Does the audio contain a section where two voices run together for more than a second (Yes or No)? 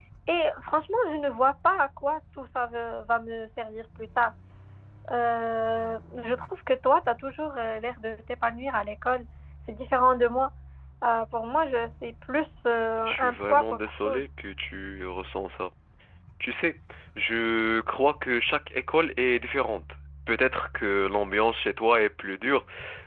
Yes